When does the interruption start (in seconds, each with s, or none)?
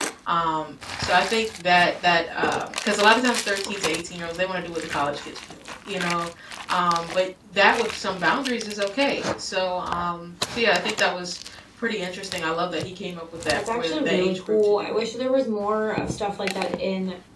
13.5 s